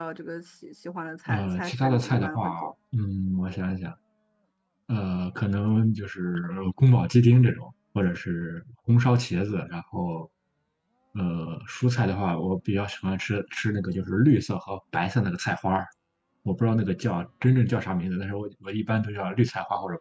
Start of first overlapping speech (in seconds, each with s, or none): 1.3 s